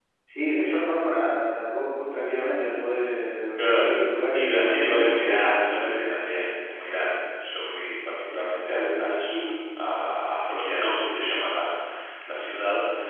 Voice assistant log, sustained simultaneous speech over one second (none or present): present